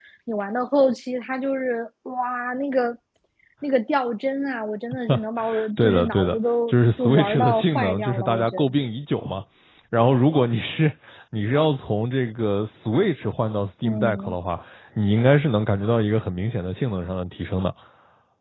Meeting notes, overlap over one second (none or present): present